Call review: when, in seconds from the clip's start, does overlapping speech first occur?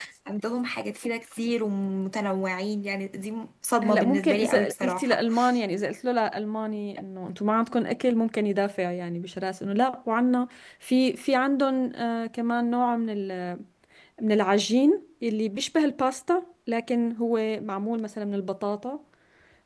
4 s

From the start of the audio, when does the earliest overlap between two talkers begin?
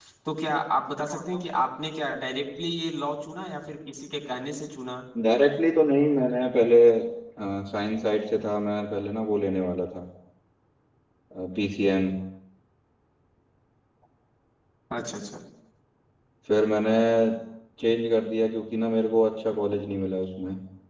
none

